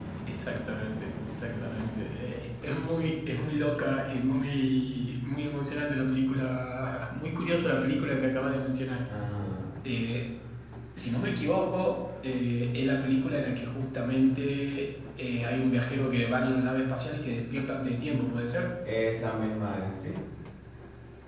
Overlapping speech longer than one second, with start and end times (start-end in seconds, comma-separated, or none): none